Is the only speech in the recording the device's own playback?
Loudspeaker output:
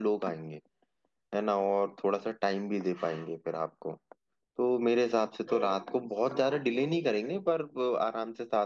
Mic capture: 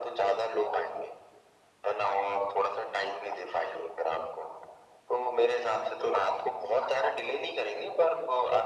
Yes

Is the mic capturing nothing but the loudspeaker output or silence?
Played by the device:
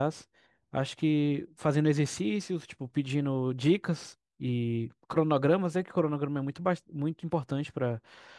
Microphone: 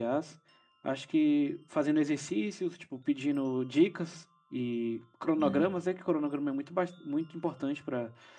No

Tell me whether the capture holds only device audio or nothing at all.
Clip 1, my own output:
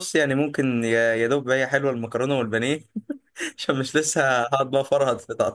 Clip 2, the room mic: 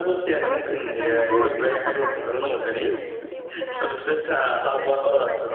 No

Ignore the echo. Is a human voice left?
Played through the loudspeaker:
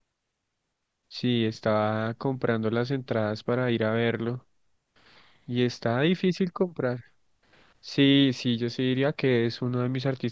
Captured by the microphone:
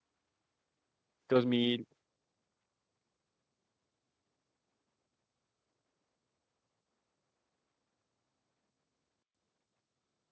Yes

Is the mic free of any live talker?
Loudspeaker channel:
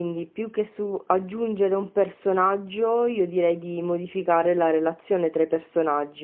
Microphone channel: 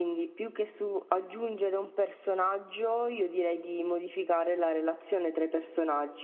Yes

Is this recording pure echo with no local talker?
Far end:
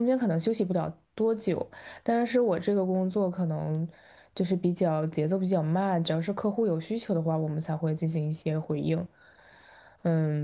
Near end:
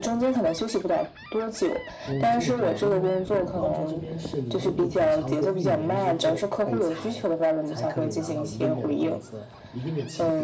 No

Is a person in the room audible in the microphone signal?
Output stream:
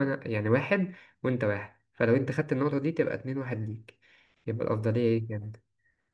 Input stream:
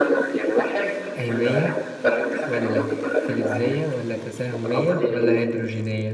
Yes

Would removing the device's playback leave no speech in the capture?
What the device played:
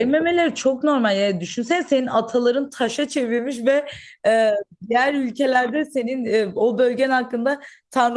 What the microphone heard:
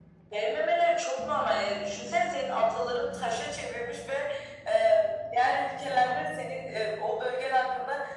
Yes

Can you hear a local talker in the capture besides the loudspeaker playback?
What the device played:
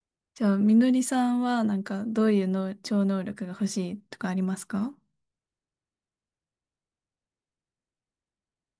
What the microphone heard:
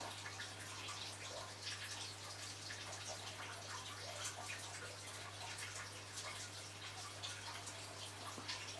No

